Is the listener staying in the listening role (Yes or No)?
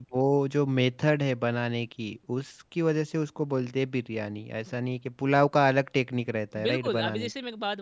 No